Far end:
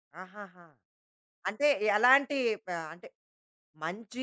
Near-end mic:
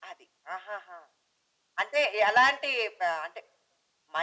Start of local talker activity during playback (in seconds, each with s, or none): none